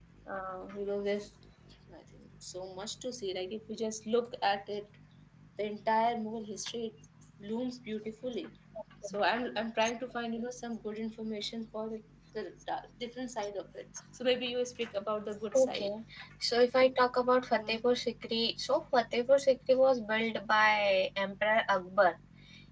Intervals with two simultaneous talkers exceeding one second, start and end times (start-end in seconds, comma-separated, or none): none